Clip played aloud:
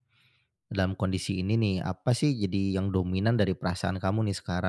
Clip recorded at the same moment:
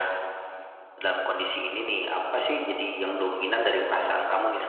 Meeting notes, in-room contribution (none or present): none